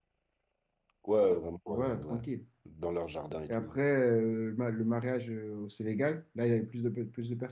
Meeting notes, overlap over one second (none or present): none